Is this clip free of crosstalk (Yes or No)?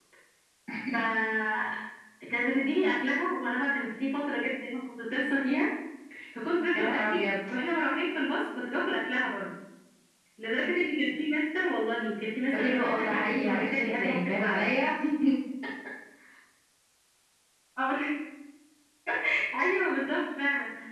No